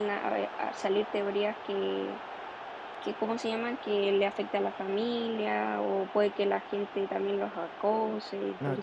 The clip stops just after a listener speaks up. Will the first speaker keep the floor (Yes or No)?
No